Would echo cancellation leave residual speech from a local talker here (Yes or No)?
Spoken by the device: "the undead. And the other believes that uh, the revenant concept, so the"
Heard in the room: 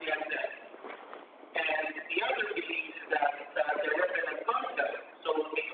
No